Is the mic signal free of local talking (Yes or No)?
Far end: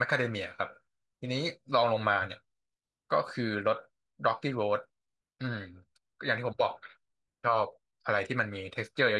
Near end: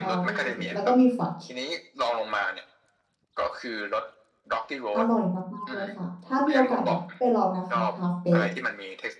No